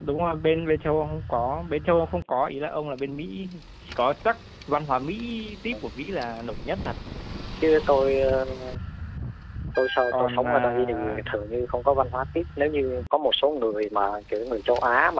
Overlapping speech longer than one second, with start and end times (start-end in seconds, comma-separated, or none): 10.1-11.4